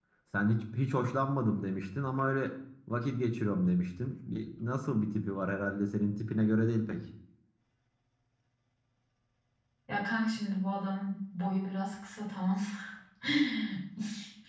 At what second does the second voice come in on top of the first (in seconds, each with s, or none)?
none